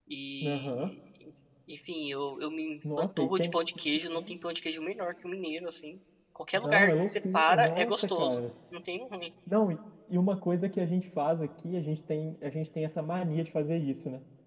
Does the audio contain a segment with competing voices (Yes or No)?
Yes